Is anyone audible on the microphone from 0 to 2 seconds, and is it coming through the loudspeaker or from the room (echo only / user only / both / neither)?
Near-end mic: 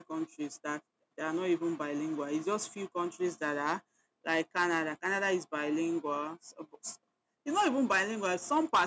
user only